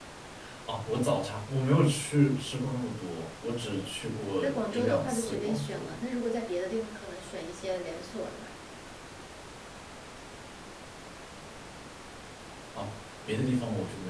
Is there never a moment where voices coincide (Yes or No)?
No